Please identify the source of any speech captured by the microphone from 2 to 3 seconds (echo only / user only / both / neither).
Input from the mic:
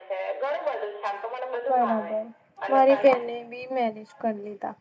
both